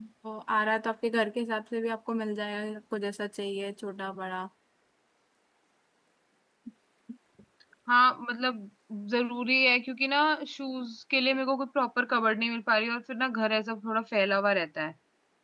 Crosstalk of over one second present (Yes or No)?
No